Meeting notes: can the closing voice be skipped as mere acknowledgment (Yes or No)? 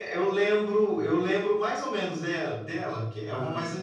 No